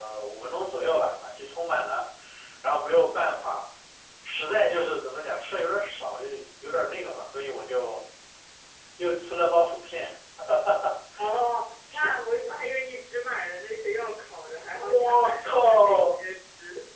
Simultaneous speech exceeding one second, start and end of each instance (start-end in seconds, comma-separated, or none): 14.8-16.2